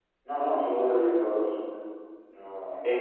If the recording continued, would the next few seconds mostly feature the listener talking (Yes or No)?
Yes